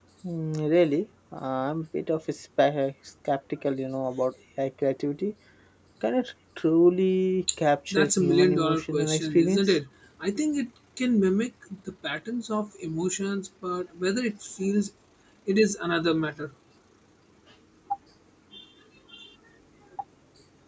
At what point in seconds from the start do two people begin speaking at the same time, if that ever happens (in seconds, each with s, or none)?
7.9 s